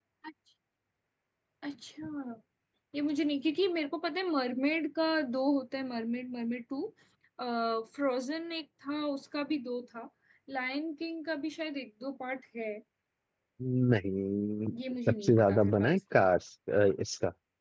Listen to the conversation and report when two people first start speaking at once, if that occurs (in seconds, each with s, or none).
15.1 s